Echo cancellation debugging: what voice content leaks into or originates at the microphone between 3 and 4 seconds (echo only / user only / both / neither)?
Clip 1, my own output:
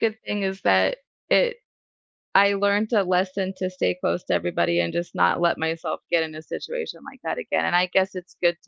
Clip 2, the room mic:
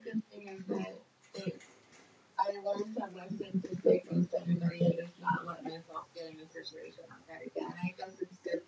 echo only